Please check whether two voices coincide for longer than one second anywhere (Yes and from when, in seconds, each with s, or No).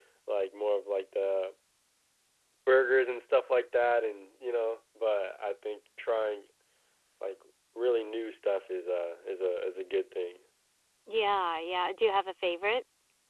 No